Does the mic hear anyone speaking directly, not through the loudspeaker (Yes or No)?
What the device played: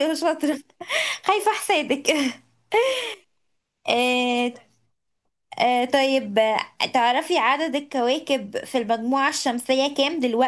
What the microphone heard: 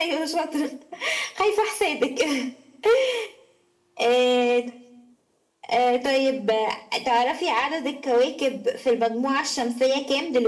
No